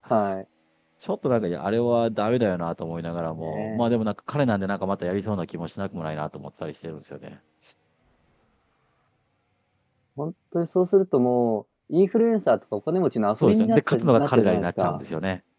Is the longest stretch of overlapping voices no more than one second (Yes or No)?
No